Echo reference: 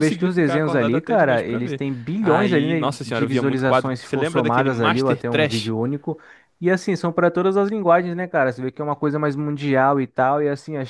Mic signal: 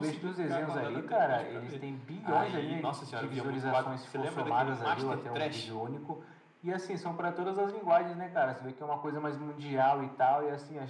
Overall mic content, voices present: echo only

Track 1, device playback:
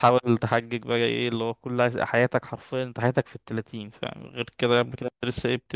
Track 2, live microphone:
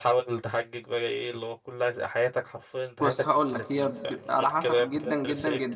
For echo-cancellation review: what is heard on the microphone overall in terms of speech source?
both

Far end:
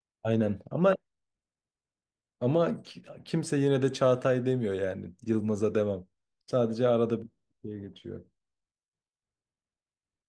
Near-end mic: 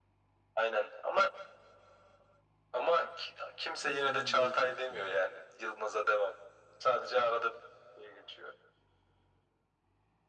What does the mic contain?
both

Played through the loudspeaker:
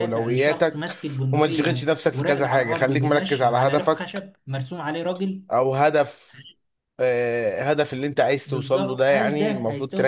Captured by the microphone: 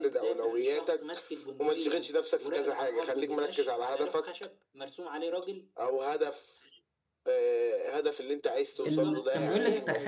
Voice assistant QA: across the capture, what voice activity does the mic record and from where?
both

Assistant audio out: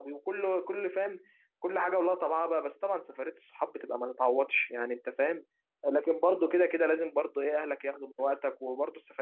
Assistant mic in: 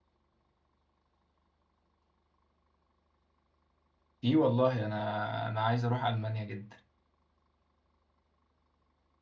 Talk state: user only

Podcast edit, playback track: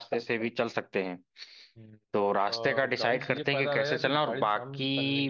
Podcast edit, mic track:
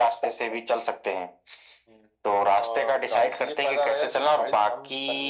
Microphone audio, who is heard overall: echo only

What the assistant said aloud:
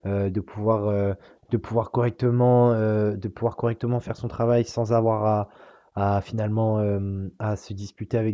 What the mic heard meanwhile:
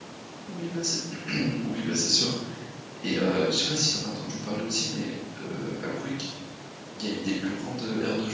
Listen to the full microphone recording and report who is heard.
user only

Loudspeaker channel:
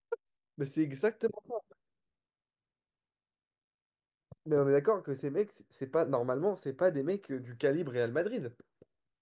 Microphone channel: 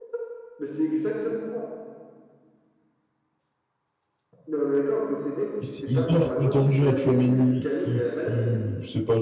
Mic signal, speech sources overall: both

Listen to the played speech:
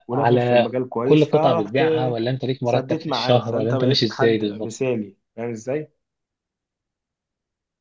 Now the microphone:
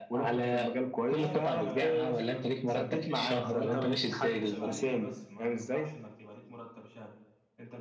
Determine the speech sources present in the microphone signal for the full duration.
both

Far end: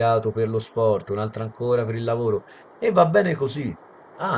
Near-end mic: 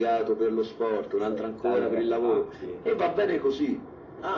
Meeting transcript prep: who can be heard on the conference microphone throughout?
both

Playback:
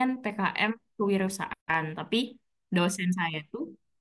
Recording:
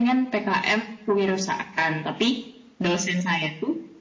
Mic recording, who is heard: echo only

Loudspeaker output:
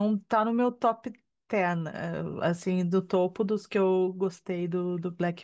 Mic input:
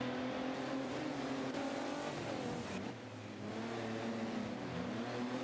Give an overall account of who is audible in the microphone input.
neither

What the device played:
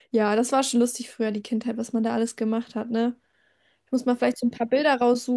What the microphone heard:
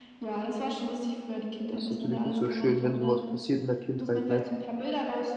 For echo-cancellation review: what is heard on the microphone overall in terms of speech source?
both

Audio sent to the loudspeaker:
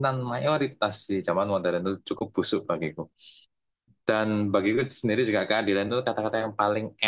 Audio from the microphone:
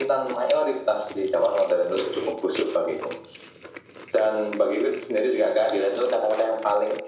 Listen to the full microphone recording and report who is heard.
echo only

